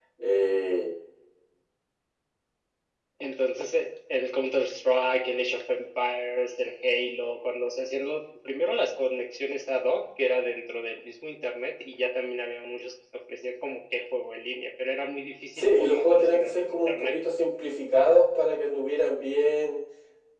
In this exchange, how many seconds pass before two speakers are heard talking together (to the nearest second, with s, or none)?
16 s